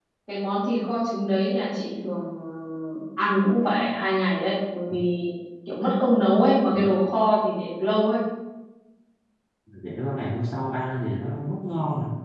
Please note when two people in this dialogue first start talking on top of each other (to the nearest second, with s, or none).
none